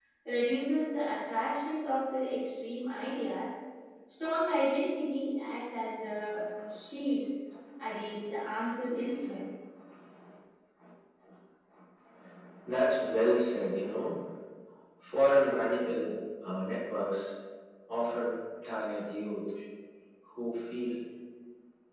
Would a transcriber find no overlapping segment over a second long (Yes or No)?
Yes